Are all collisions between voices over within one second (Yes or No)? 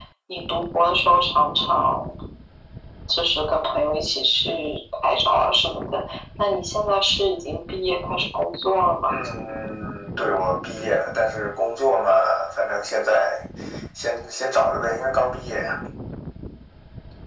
Yes